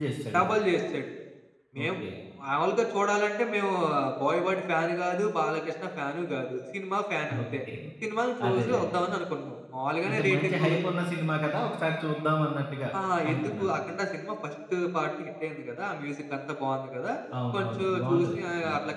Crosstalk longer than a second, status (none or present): present